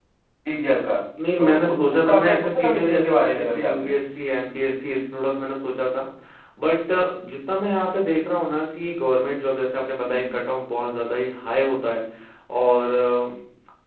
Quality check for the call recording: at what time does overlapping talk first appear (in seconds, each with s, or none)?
1.4 s